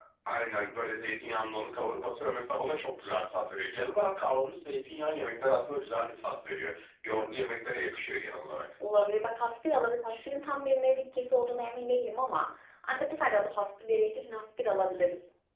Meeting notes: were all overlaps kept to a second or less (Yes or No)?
Yes